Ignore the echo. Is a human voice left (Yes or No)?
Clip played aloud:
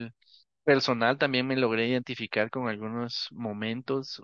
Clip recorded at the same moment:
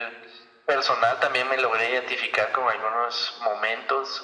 No